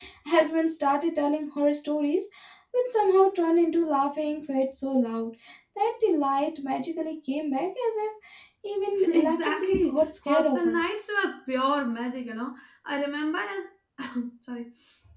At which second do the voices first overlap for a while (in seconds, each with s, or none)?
9.1 s